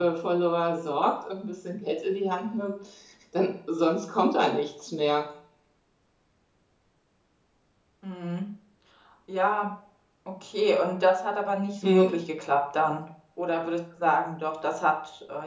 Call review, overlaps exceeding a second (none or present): none